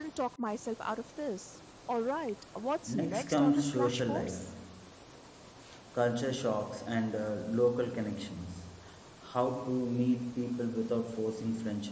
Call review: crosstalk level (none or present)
present